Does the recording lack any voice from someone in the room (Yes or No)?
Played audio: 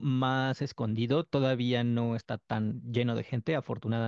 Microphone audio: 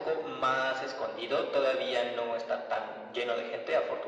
Yes